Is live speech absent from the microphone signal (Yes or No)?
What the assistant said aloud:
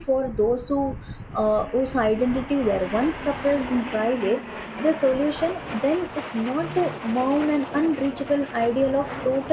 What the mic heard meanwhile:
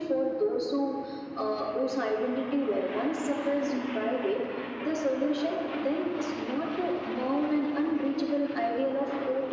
Yes